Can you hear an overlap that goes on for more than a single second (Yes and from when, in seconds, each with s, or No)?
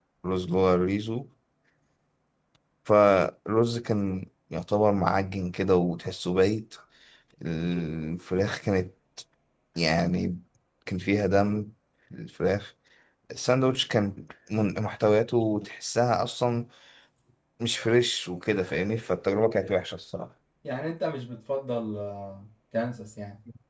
No